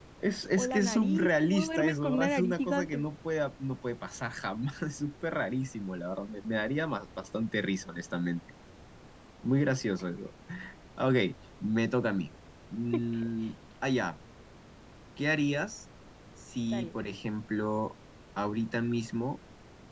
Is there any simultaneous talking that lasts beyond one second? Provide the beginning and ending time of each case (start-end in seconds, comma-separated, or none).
0.6-3.0